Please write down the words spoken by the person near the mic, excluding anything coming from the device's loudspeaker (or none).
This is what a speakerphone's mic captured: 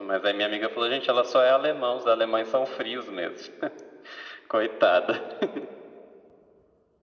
none